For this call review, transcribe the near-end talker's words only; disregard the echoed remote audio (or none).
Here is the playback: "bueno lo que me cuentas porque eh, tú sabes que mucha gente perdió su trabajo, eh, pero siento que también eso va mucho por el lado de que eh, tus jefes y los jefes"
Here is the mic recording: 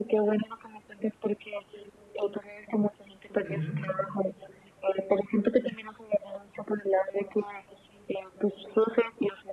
ujú,